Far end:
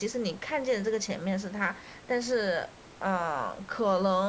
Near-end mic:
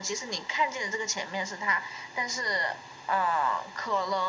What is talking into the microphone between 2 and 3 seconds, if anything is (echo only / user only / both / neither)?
echo only